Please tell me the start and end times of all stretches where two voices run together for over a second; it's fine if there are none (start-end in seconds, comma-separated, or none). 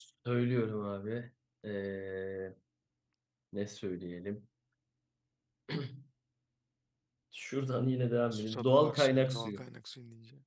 8.3-9.6